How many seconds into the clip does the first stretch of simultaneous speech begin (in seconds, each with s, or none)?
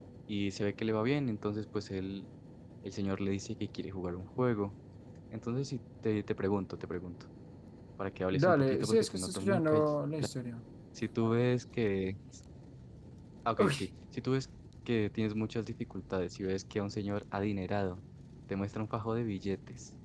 8.3 s